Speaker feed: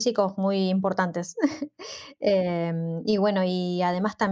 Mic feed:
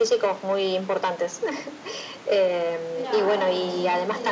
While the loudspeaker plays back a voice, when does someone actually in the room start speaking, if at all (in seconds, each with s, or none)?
2.9 s